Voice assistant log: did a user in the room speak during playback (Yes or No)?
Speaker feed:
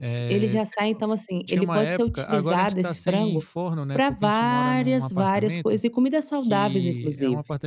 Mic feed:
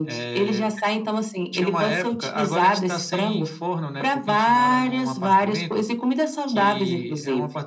No